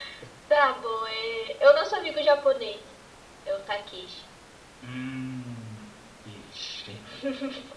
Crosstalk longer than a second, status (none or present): none